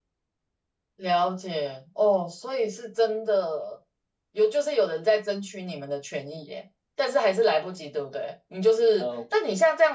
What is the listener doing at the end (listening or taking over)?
listening